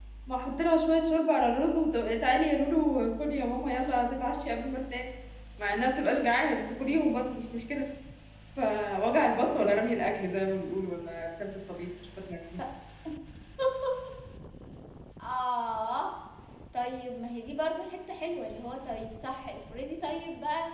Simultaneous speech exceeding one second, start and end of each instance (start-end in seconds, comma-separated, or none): none